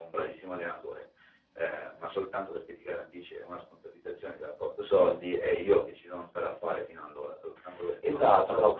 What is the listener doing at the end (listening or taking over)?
taking over